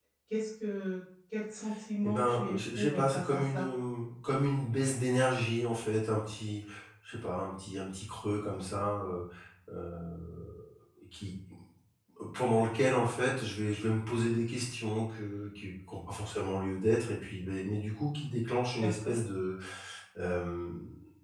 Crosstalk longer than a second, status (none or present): present